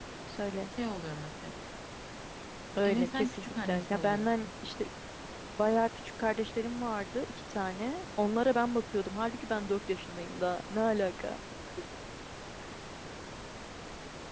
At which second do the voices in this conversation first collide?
2.8 s

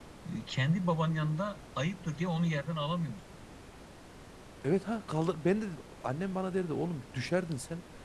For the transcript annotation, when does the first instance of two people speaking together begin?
none

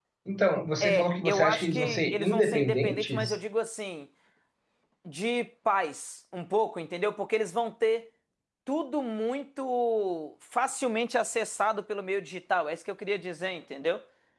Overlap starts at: 0.8 s

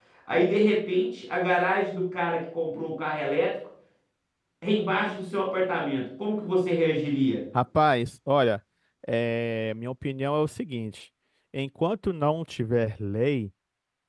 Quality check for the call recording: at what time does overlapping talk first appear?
none

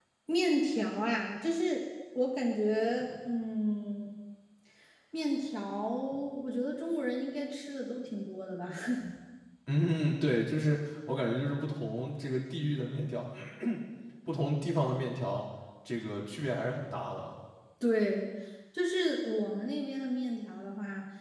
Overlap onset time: none

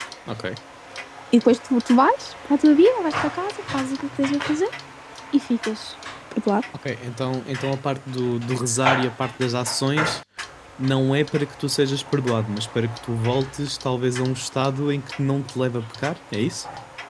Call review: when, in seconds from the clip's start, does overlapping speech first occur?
none

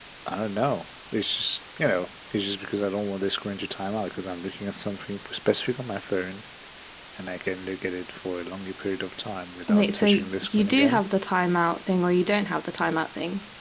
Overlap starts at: 9.7 s

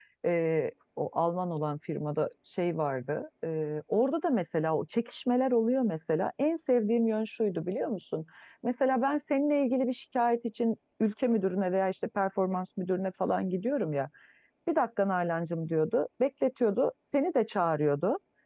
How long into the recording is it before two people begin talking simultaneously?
none

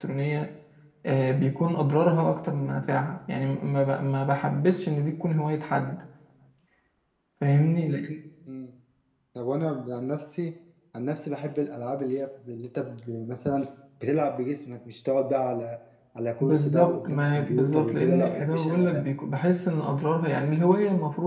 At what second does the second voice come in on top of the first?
16.4 s

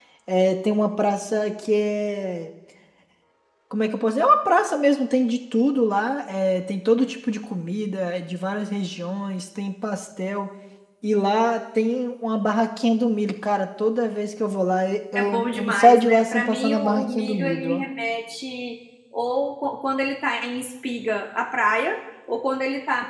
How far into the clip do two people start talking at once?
15.2 s

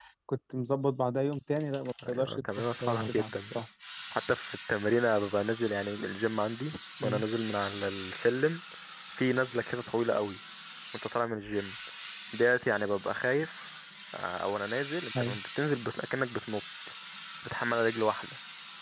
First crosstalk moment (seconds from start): 2.0 s

